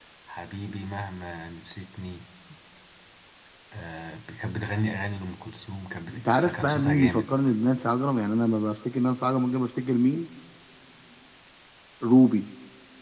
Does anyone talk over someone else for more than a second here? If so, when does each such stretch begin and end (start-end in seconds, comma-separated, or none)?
6.1-7.3